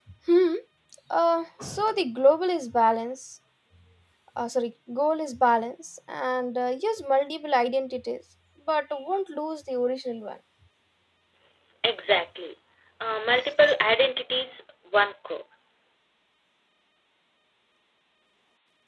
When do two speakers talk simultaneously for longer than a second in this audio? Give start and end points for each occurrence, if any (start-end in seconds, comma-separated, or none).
none